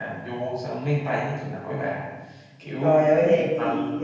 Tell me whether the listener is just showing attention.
No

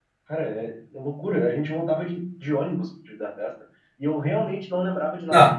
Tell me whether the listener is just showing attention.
No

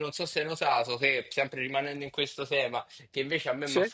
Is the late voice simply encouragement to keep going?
Yes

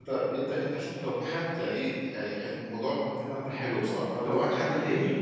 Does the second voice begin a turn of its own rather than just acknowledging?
Yes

